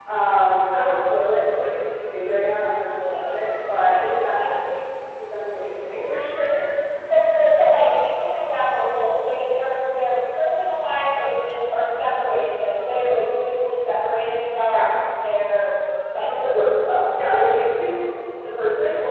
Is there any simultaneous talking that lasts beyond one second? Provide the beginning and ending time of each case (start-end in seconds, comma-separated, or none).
3.0-4.5